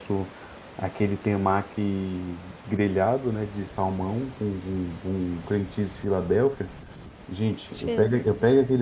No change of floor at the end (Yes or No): Yes